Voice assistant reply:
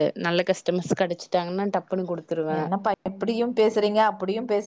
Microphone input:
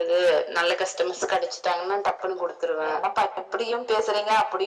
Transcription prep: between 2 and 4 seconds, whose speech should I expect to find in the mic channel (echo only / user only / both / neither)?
echo only